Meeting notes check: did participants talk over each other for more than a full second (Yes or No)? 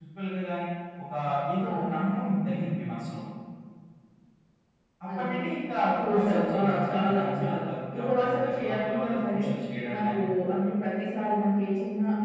Yes